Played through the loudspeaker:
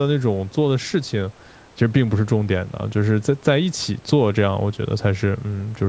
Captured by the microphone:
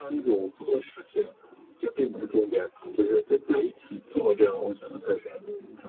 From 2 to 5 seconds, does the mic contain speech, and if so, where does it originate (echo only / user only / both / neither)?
echo only